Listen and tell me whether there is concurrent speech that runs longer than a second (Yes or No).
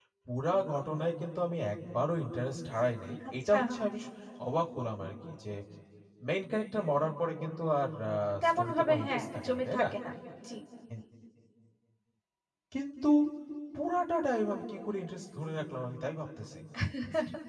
Yes